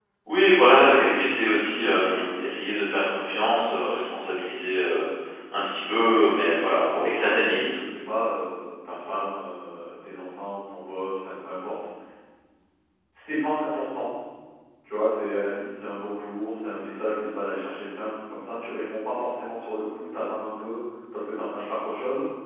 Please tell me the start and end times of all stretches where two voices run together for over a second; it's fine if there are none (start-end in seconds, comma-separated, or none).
5.9-7.8